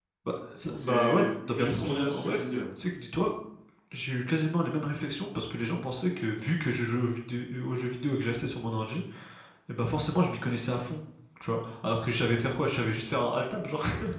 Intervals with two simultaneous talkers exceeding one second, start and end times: 0.7-2.4

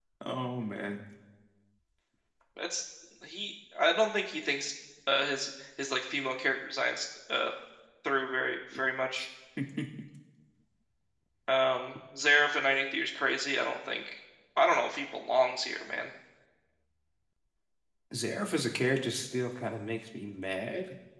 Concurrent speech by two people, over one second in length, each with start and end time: none

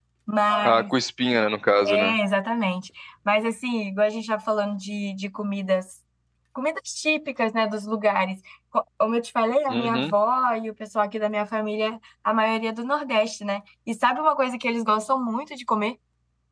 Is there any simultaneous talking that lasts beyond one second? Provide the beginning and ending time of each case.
none

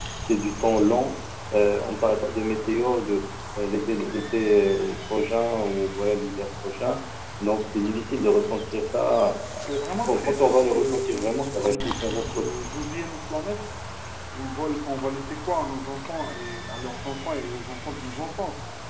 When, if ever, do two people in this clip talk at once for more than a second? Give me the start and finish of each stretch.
10.1-12.4

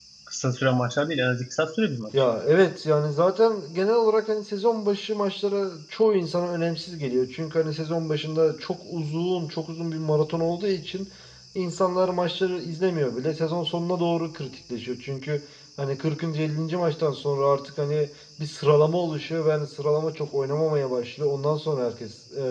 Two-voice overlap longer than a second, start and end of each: none

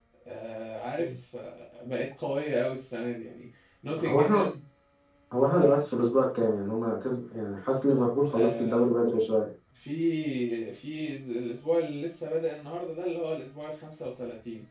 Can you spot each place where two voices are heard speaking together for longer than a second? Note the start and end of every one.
none

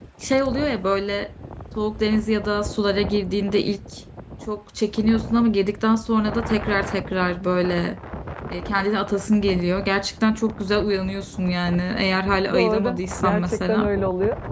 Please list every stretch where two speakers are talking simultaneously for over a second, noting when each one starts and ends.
12.5-13.9

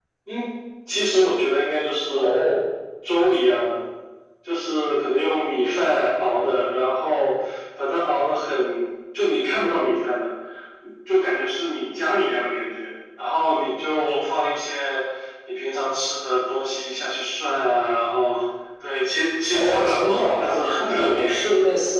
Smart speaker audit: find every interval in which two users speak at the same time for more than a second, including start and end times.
19.5-21.3

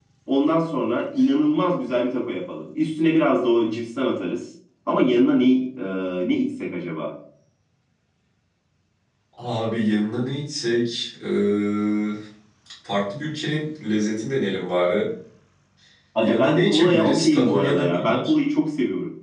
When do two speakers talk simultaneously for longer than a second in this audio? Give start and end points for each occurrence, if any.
16.2-18.3

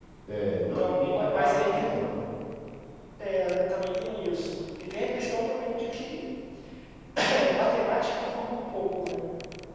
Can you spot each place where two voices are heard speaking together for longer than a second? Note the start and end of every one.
0.6-2.0

